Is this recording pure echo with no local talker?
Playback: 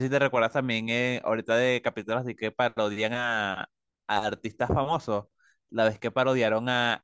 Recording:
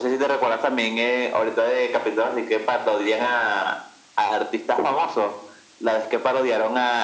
Yes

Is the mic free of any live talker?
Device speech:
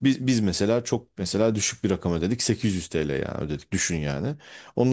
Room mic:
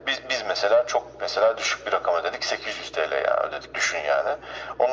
Yes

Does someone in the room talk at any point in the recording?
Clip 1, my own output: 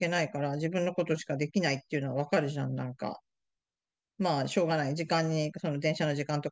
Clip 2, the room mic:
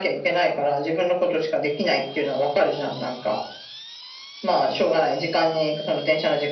No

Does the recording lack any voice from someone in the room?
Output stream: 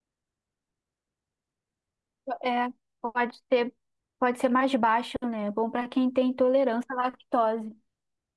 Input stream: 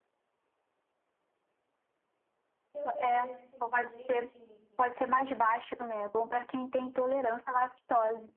No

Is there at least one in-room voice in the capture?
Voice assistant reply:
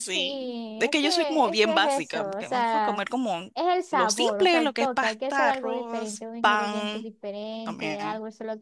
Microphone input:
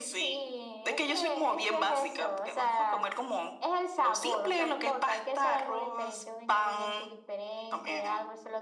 No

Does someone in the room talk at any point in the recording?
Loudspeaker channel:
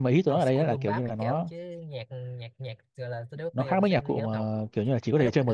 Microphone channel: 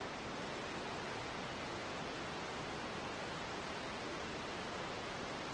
No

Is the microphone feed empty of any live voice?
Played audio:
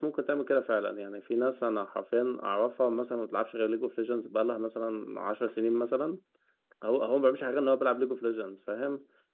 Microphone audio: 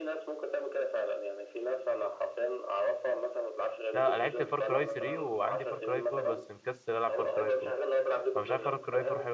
No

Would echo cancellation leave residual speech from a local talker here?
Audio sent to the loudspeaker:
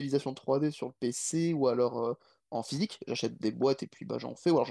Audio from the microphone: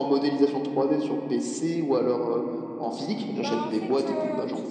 Yes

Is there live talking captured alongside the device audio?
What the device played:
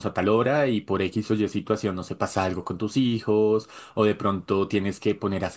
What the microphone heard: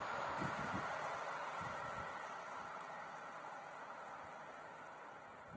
No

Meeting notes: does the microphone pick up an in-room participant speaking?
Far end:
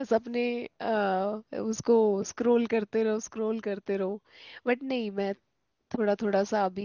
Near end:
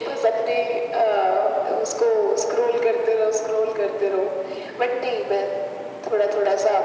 No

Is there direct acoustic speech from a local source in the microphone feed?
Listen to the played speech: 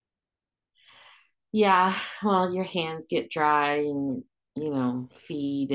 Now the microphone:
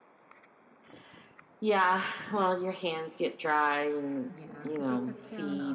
Yes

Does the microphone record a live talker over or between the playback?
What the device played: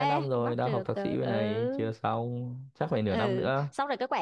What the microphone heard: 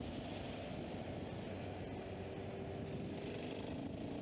No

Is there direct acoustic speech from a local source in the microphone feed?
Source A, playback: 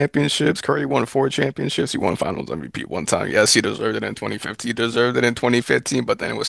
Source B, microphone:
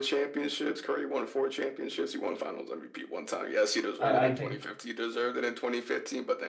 Yes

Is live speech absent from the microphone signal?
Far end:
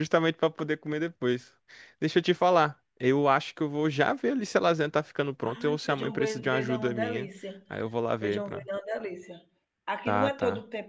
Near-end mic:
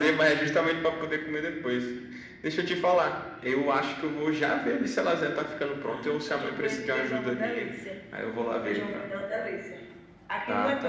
Yes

